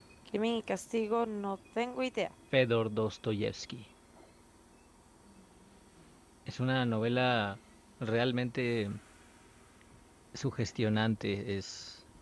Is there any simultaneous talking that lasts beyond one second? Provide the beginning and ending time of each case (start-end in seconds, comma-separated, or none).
none